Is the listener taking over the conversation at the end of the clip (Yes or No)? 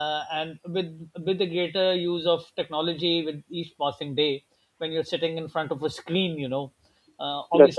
No